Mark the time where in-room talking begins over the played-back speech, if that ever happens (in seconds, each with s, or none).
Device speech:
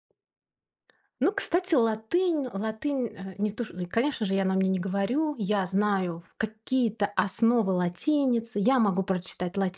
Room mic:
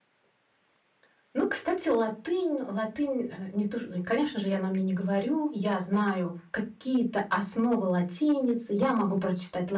none